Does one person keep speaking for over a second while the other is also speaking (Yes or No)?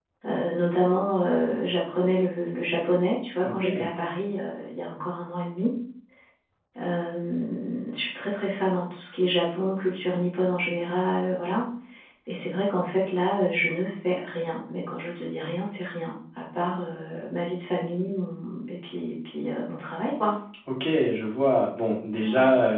No